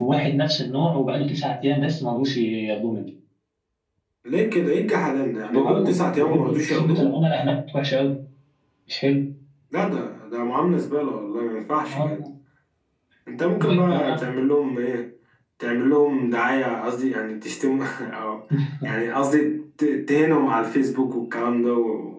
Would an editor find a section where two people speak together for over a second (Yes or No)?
Yes